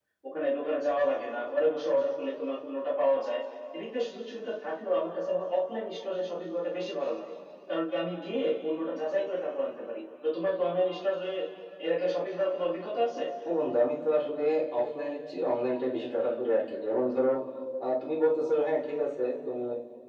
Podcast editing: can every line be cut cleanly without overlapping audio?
Yes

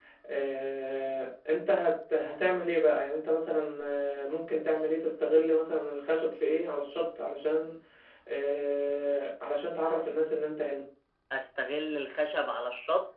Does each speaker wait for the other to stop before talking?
Yes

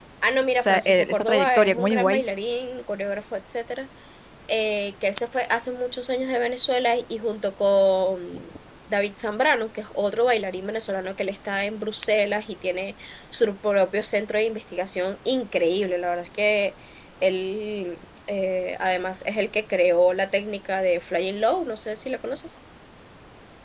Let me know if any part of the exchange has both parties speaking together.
Yes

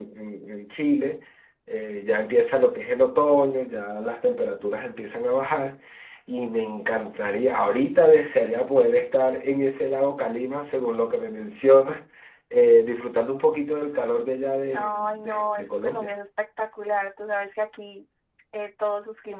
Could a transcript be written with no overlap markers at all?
No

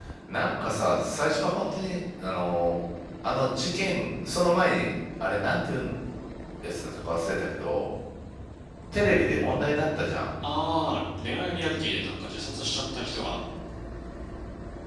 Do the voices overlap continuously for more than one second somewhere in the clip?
No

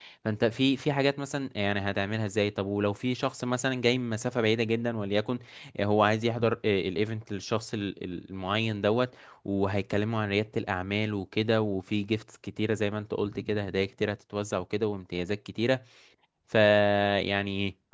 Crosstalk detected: No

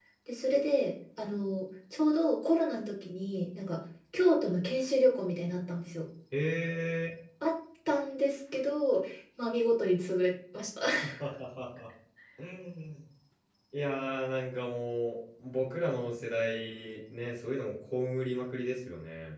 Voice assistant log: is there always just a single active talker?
Yes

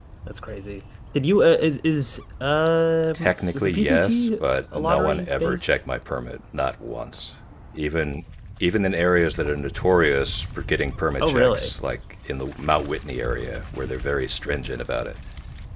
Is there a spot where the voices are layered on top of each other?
Yes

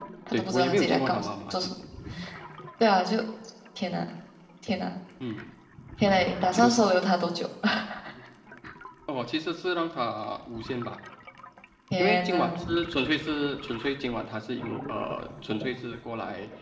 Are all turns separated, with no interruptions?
No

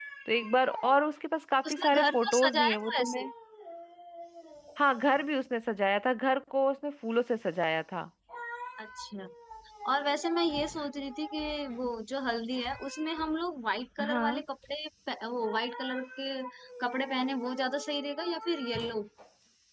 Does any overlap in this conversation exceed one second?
Yes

